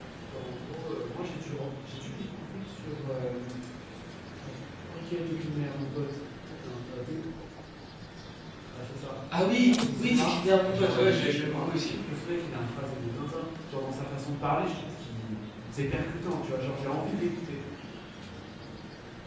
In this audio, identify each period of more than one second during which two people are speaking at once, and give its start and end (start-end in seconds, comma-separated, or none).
10.0-11.9